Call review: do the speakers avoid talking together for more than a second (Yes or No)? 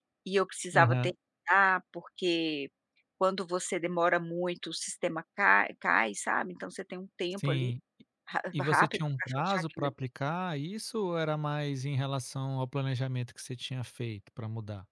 No